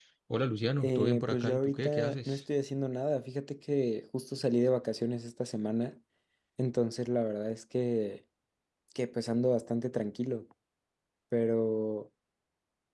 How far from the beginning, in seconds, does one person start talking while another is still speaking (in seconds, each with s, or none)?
0.8 s